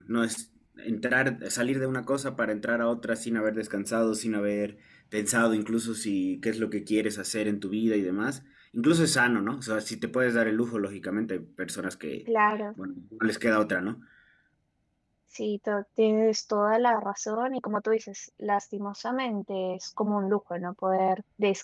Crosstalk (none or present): none